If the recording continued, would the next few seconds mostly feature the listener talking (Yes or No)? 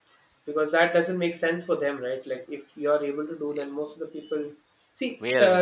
No